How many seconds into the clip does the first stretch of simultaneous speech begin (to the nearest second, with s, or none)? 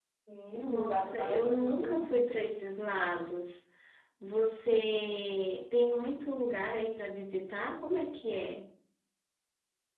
1 s